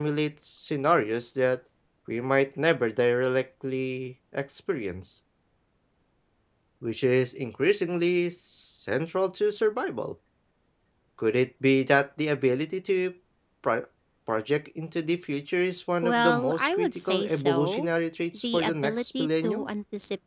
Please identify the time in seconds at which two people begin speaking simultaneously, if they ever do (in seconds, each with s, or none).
16.0 s